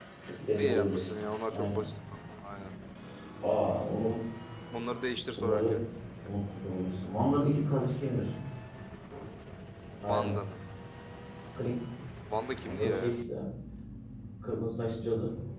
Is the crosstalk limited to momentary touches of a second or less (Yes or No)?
No